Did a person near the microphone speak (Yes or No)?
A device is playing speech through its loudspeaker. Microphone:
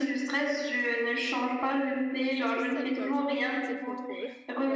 Yes